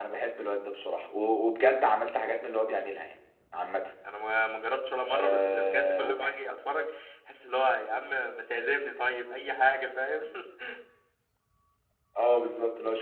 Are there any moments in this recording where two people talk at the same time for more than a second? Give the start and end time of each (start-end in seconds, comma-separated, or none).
5.0-6.4